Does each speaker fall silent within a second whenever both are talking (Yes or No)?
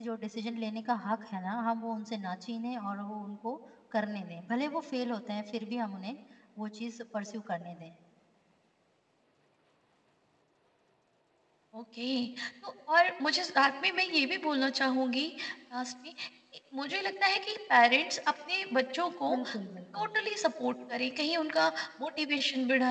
Yes